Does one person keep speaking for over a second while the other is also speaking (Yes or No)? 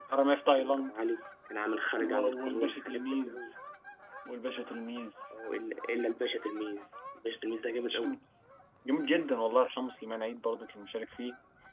Yes